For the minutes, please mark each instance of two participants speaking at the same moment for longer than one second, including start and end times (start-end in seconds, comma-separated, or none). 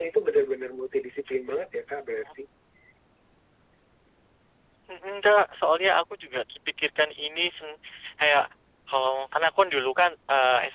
none